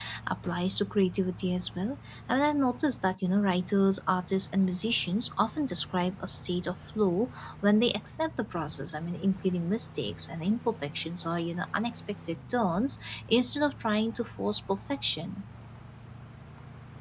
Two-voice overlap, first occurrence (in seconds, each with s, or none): none